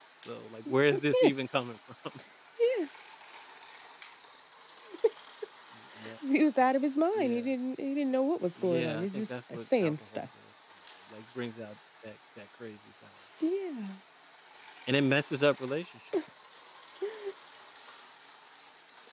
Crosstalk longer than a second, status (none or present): present